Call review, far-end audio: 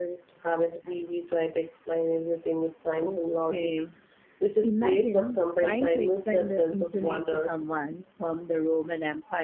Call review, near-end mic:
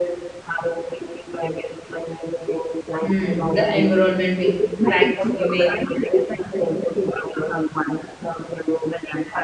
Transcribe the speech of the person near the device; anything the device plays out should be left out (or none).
Hmm, the environmental impact, you mean?